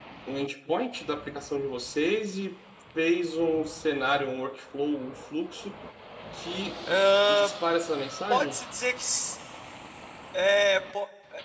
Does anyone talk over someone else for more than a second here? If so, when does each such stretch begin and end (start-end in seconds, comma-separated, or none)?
none